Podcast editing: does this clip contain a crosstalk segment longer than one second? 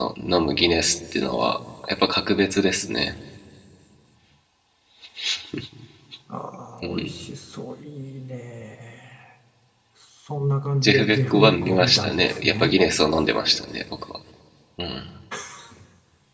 Yes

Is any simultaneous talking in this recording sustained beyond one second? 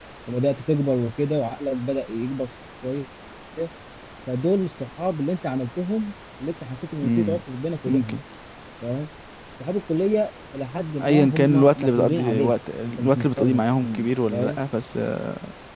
Yes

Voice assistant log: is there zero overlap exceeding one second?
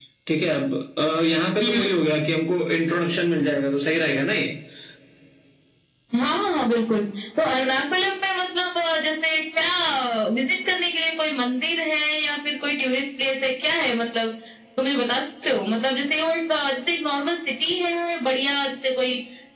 Yes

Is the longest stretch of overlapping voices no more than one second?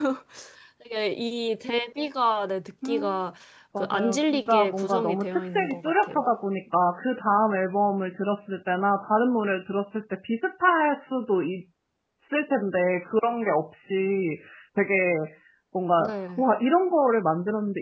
No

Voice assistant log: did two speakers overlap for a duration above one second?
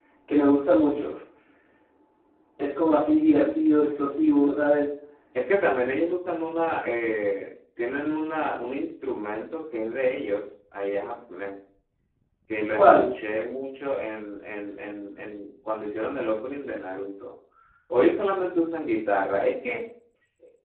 No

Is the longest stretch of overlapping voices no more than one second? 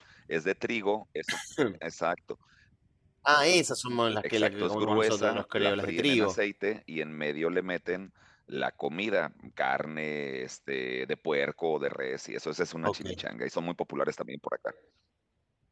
No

